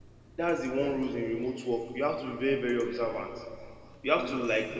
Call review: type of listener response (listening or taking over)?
listening